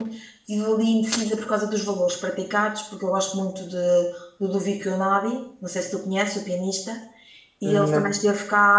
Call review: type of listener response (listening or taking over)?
listening